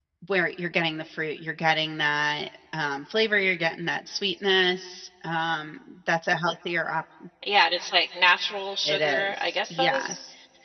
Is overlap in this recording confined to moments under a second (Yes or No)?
No